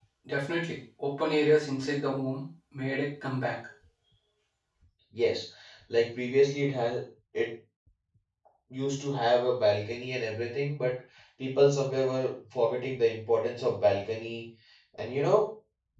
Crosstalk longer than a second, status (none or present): none